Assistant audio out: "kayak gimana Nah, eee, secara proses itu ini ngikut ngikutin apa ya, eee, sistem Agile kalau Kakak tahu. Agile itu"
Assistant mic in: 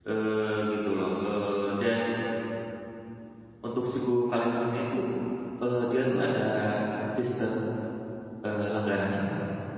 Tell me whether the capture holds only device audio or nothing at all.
No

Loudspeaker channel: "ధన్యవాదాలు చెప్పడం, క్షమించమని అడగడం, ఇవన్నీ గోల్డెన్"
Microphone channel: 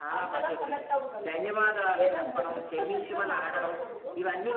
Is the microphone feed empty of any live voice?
No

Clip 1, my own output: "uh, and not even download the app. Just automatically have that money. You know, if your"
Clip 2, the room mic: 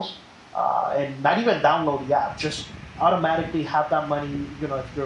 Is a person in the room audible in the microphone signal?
No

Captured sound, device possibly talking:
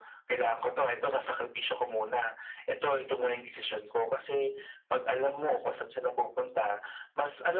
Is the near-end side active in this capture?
No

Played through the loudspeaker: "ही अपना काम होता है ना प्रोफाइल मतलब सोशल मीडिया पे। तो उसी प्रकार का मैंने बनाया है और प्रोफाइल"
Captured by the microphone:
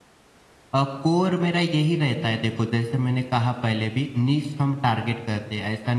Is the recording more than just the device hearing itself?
Yes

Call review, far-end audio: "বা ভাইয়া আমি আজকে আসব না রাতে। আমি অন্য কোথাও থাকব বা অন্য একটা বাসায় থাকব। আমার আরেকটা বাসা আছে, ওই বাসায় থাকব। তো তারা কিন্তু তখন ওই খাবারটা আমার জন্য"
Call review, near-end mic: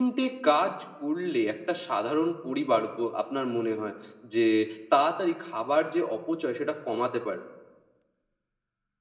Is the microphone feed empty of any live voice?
No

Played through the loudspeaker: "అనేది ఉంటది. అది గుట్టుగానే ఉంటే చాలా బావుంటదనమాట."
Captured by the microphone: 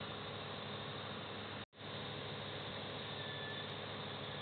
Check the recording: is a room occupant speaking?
No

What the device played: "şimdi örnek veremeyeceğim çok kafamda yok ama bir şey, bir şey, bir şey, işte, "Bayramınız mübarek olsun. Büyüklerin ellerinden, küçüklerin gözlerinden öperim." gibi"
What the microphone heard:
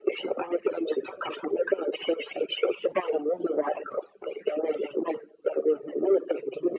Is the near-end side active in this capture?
No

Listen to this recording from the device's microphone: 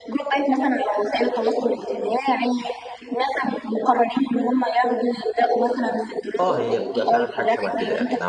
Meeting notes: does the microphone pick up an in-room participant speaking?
Yes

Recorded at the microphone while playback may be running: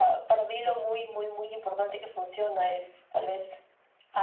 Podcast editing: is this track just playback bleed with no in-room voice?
Yes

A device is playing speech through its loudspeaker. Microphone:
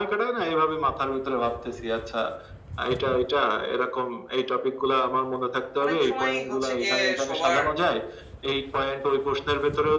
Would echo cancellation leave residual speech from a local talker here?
Yes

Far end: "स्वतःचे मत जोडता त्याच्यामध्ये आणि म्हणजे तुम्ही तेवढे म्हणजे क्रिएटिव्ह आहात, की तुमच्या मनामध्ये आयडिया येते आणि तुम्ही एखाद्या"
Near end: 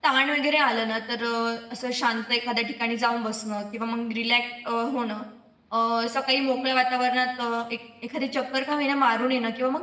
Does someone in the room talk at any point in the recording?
Yes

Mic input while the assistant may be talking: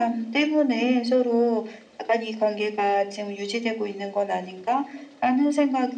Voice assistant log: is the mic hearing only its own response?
Yes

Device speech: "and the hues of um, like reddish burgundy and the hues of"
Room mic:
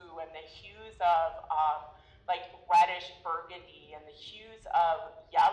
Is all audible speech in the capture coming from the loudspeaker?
Yes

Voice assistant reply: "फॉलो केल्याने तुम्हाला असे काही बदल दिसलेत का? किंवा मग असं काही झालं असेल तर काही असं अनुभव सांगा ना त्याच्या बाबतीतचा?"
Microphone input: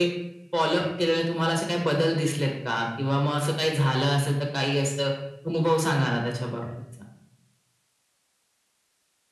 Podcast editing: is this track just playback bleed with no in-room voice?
Yes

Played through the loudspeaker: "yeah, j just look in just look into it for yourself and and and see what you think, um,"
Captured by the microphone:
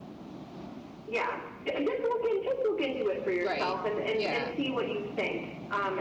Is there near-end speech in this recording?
Yes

